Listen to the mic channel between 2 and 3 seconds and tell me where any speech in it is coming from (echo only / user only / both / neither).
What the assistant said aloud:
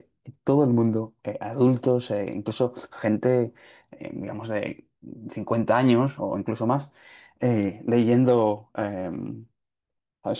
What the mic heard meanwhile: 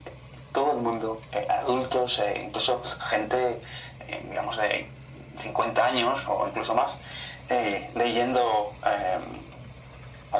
echo only